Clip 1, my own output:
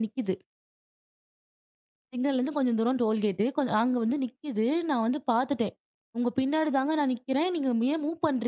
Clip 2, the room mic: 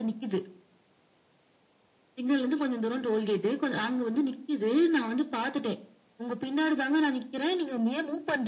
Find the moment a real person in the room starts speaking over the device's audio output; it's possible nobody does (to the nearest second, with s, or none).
none